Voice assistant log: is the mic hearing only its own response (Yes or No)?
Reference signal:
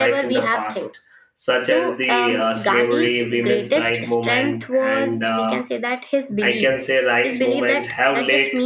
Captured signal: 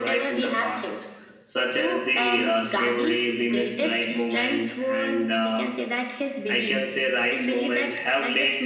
Yes